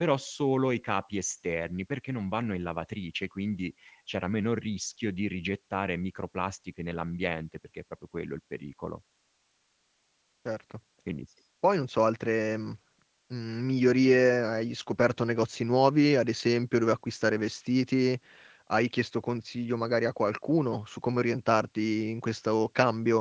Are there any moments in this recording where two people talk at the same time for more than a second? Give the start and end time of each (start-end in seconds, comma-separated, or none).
none